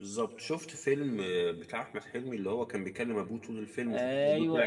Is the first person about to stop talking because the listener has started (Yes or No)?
Yes